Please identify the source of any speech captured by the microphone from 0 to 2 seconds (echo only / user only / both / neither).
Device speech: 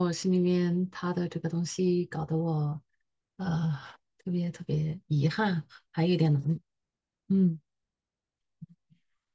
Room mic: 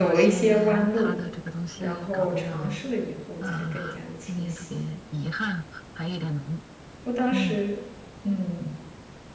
both